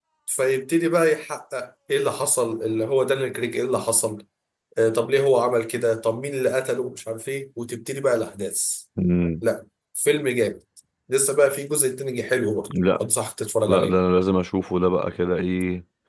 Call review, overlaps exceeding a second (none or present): none